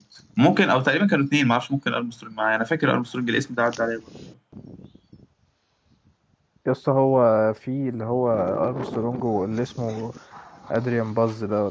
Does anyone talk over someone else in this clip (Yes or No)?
No